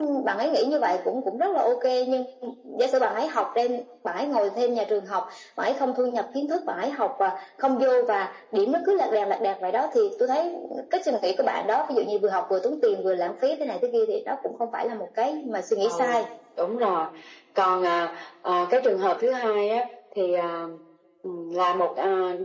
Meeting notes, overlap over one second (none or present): none